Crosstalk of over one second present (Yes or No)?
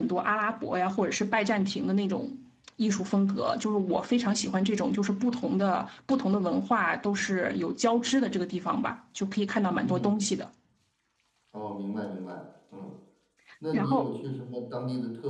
No